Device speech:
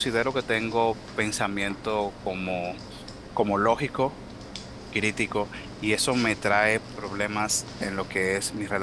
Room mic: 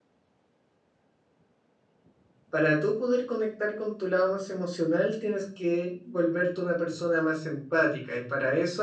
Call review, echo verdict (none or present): none